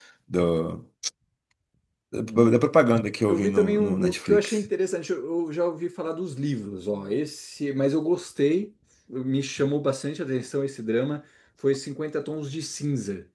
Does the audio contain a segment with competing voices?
Yes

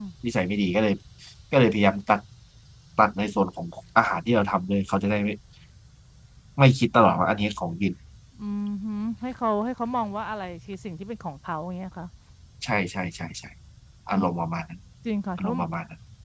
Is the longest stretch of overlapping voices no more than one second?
Yes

